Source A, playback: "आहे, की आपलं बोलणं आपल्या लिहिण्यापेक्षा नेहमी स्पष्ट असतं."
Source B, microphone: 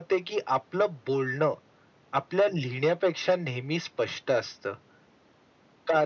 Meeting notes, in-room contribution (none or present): none